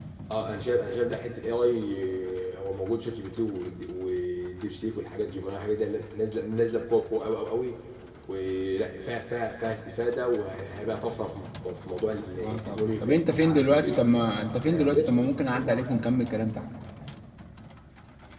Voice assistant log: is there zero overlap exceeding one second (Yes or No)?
No